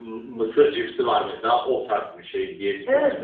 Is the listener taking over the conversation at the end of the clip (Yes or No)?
Yes